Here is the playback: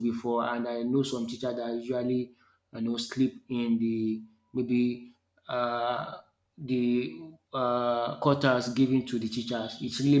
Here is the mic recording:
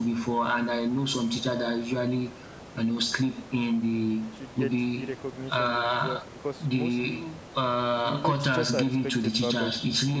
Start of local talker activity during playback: 4.3 s

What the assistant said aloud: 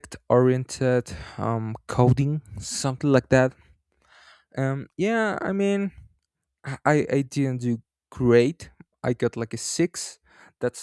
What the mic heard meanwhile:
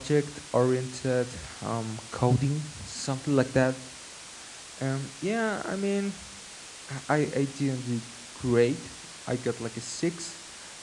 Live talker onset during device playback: none

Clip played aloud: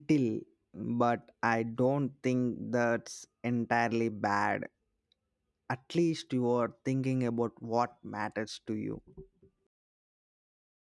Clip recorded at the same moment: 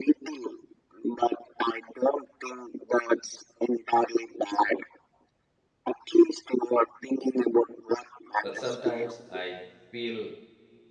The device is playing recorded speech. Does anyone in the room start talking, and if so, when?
8.4 s

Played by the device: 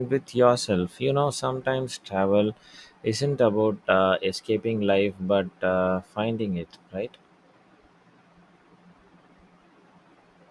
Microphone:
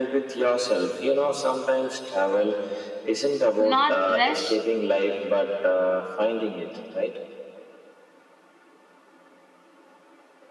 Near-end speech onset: 3.6 s

